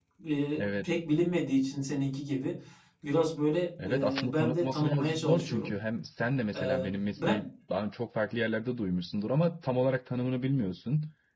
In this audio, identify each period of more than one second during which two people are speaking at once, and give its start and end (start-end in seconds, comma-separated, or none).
3.8-5.7